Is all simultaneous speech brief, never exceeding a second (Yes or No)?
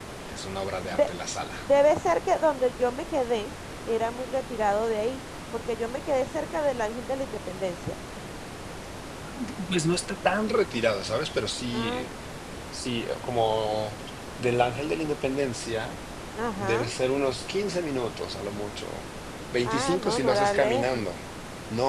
No